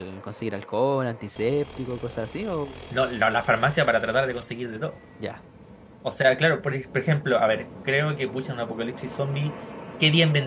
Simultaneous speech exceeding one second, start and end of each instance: none

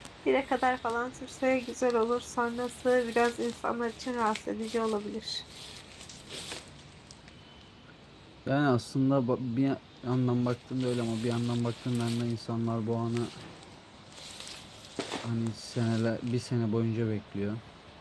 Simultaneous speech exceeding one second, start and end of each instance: none

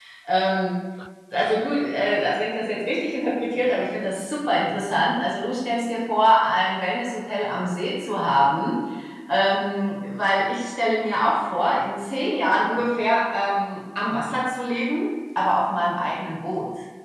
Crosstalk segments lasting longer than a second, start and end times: none

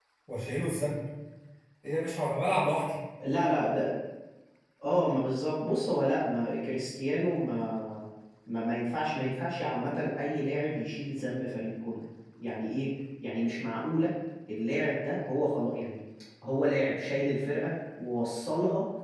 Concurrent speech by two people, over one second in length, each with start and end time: none

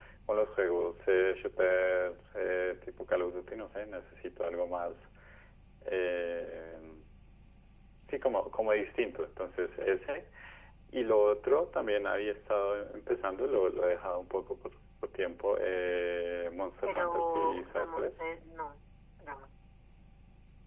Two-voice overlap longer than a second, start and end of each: 16.9-18.2

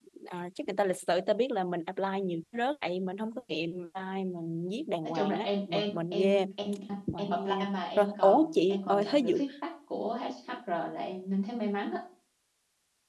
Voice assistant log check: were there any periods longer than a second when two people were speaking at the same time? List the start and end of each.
5.0-6.4, 8.0-9.4

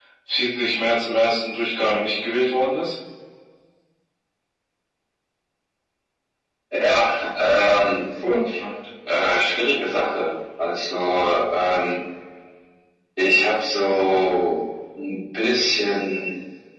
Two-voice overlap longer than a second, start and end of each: none

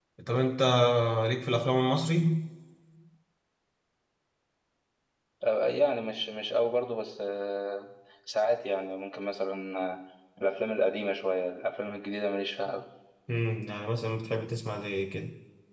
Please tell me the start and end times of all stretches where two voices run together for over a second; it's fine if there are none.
none

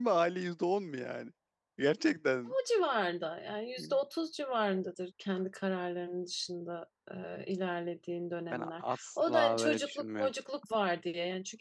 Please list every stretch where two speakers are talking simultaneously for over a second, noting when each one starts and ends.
8.5-10.3

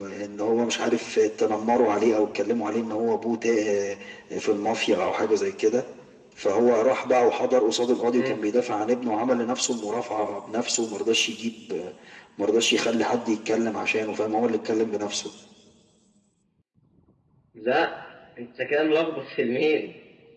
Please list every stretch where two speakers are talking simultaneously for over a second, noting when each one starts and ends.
none

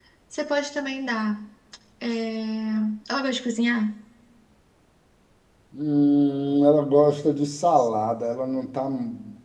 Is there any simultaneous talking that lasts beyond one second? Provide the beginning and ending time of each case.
none

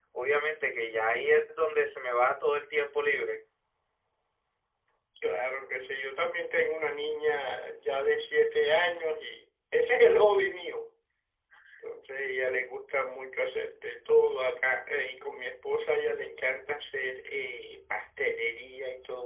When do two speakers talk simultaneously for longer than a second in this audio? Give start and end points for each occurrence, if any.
none

